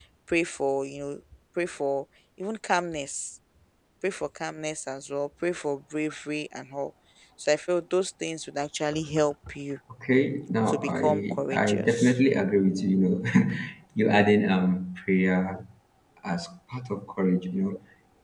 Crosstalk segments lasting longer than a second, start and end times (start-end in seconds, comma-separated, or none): 10.7-12.2